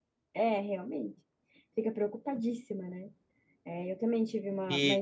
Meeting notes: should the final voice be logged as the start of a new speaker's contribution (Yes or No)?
Yes